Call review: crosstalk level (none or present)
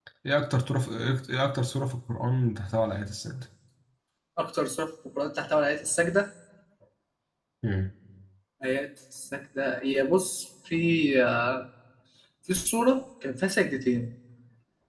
none